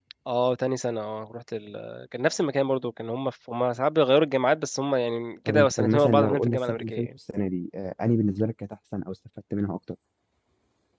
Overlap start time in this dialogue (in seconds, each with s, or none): 5.5 s